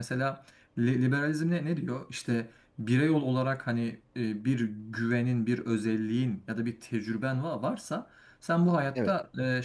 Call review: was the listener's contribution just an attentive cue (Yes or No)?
Yes